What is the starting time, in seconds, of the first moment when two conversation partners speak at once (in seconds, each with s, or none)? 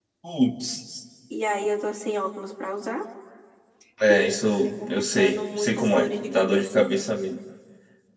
4.1 s